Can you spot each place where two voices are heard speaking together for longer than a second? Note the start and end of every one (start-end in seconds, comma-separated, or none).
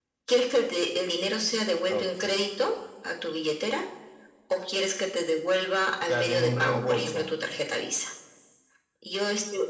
6.1-7.3